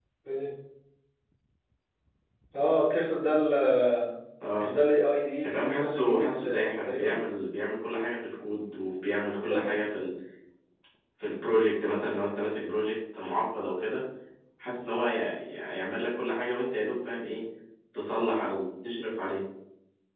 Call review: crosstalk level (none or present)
present